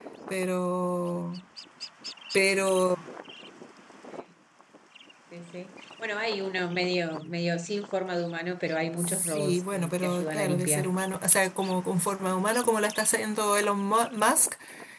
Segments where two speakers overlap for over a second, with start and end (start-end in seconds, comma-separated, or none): 9.0-10.9